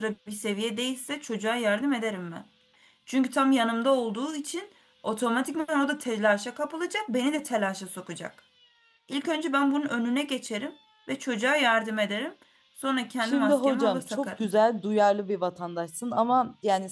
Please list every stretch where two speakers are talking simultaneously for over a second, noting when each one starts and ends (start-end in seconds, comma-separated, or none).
13.2-14.5